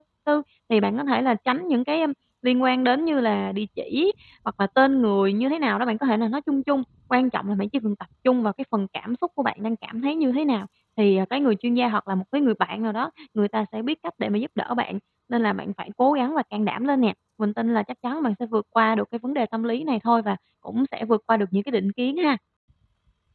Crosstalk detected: No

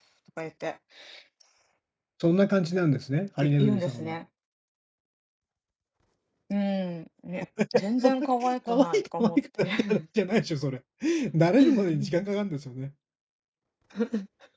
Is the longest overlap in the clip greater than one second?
Yes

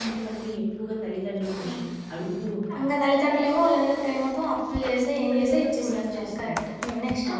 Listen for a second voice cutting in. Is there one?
Yes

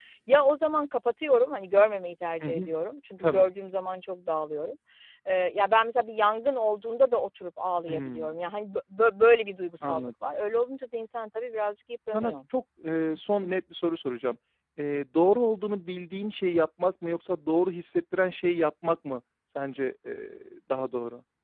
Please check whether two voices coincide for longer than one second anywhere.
No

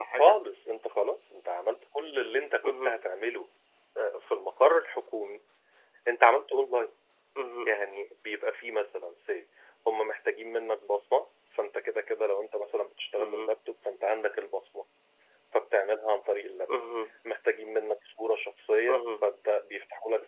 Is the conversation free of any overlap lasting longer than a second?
Yes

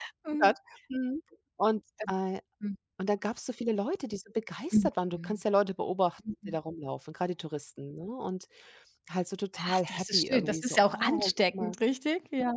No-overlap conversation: No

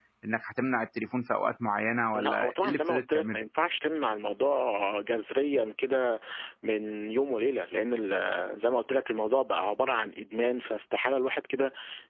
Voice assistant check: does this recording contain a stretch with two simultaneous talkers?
Yes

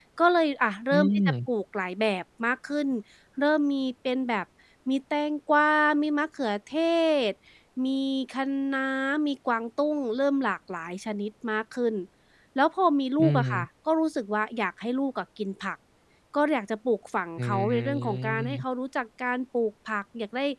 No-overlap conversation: No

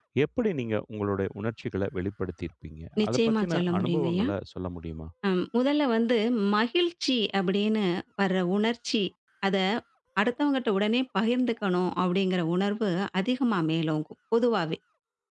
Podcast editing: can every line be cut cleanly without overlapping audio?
No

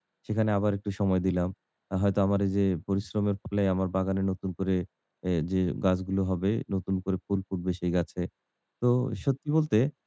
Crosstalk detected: No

